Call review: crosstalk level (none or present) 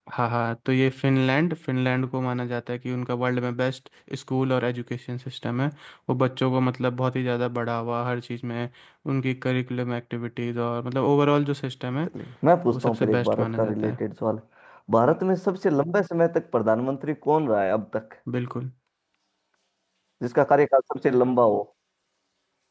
present